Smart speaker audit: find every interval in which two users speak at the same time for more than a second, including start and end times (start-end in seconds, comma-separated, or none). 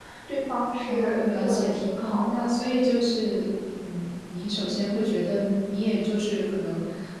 0.8-2.4